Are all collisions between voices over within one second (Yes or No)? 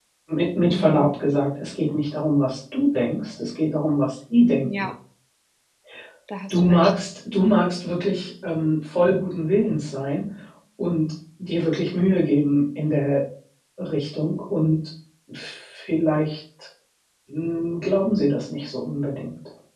Yes